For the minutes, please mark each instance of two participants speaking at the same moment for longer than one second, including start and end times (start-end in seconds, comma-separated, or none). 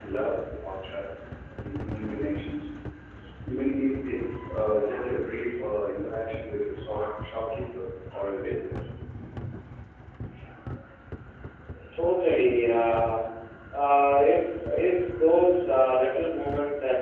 none